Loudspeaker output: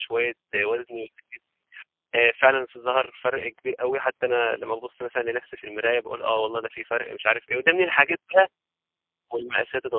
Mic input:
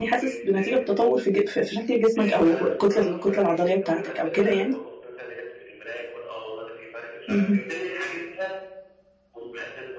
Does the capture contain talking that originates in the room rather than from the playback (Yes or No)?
Yes